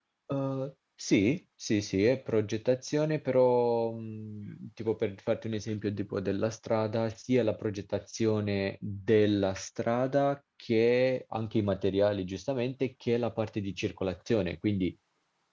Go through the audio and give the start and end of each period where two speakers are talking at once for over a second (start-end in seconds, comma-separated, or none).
none